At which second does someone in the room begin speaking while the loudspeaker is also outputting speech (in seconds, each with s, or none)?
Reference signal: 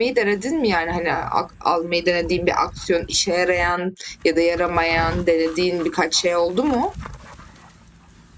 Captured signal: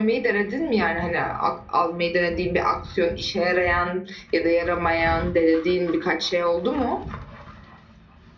none